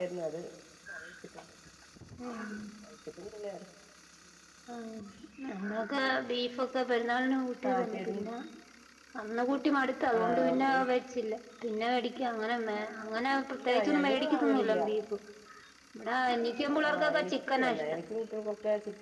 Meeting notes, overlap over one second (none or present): present